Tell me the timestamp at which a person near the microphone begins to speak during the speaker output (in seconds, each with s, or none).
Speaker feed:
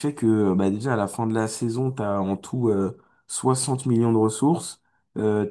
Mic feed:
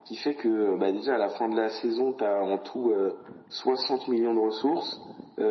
none